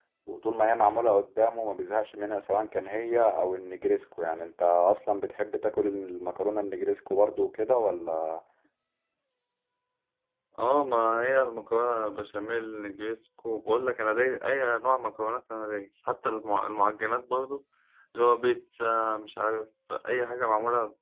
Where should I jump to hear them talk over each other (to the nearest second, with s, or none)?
none